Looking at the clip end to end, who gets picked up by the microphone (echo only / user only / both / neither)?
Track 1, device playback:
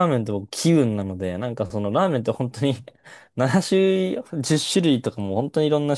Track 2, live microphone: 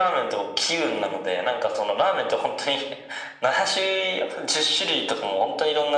echo only